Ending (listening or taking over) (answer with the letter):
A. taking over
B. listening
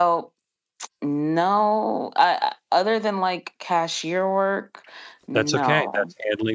A